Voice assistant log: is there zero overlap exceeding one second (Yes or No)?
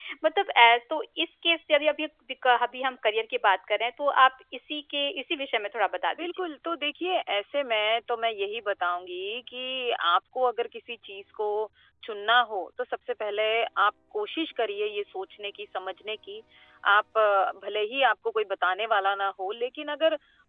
Yes